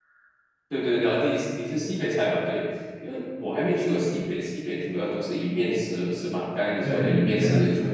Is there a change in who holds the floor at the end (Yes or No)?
Yes